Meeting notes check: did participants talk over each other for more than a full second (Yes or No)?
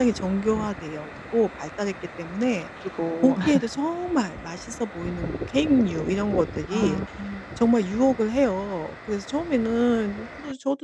No